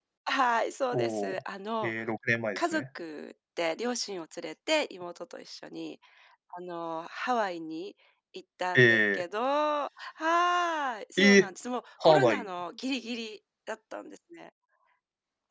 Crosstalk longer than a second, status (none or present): none